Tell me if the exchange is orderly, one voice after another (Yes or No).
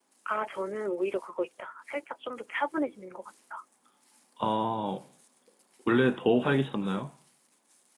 Yes